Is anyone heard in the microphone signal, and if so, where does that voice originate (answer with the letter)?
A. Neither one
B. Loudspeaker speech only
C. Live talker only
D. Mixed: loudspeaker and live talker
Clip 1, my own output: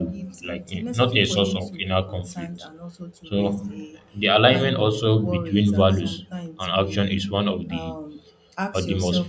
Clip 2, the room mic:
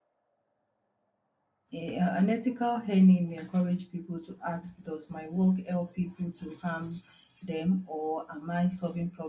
C